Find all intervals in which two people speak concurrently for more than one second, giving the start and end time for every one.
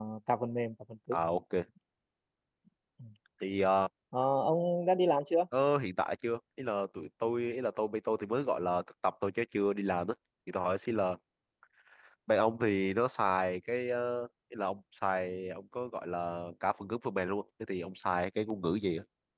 none

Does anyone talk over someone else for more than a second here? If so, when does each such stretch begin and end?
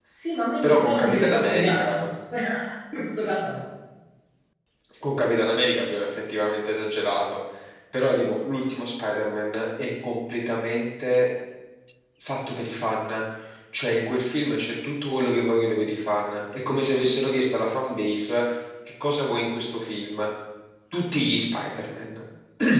0.6-2.1

